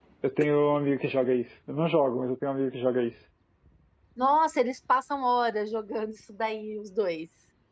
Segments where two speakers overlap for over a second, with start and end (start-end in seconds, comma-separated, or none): none